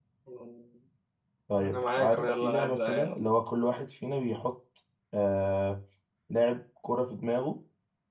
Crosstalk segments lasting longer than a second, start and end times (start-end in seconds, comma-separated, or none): 1.6-3.2